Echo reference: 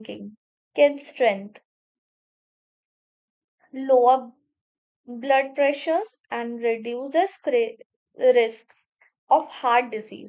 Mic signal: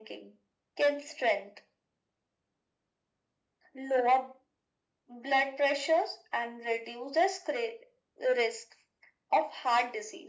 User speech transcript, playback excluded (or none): none